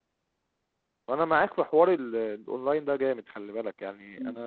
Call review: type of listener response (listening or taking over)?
taking over